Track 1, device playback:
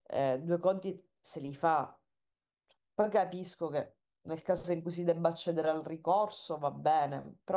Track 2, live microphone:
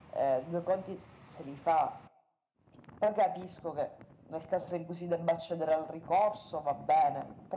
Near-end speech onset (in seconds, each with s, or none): none